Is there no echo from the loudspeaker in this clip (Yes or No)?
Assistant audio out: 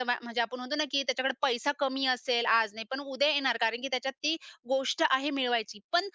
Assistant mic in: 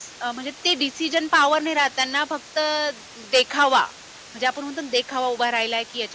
Yes